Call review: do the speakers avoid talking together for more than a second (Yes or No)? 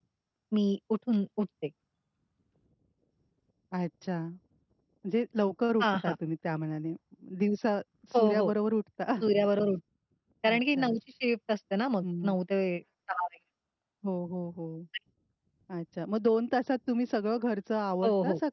Yes